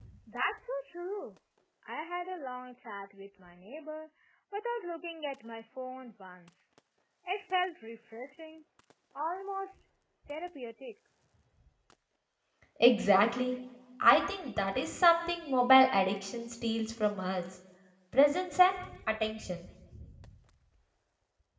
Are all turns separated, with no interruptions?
Yes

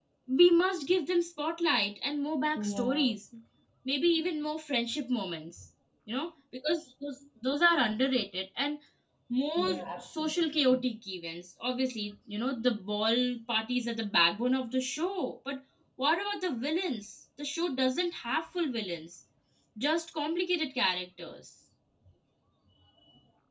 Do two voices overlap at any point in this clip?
Yes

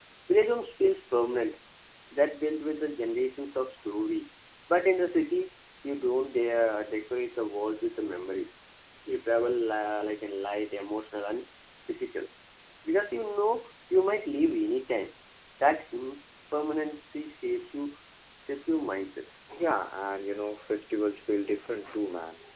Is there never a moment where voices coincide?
Yes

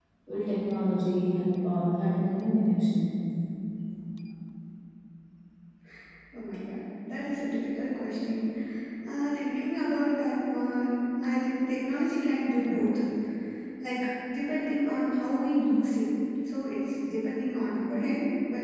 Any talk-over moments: No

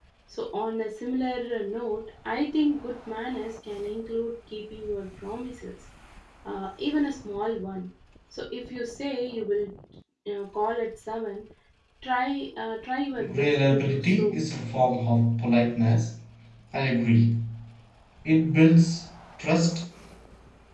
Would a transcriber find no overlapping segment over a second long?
No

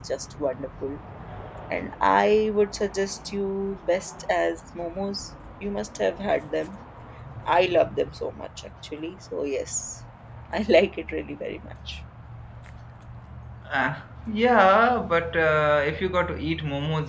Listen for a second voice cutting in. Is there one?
No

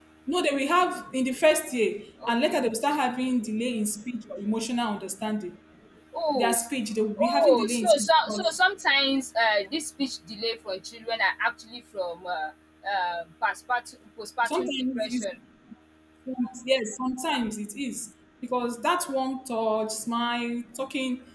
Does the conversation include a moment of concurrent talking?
Yes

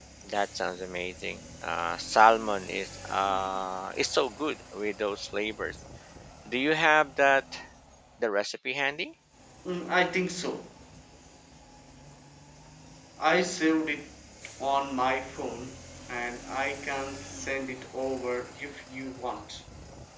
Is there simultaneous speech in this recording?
No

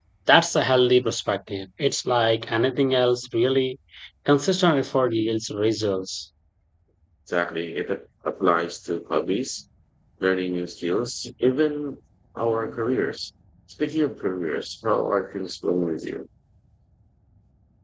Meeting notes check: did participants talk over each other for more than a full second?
No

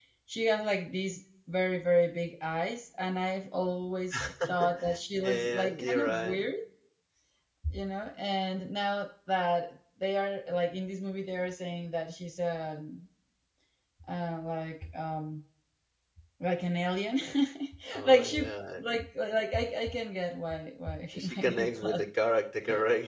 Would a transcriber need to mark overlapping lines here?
Yes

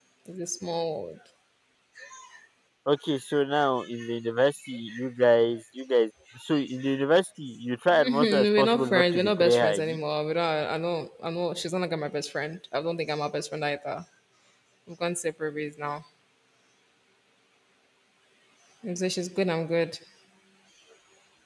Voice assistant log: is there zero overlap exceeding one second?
No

